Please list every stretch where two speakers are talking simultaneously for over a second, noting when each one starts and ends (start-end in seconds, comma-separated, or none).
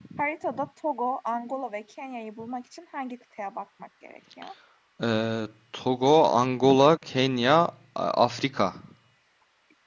none